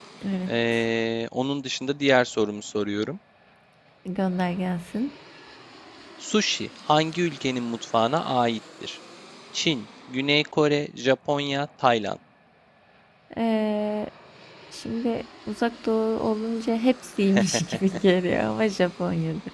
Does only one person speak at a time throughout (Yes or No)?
Yes